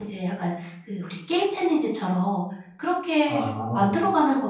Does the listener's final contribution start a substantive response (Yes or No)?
No